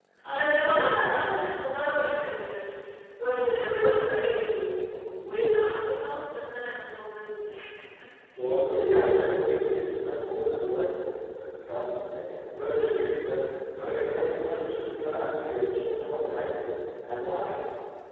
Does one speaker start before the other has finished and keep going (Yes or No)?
No